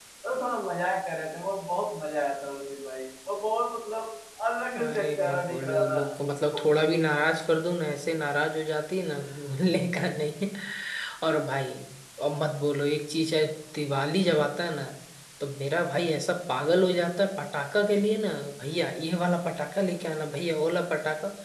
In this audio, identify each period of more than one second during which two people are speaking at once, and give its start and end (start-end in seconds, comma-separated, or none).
4.8-6.0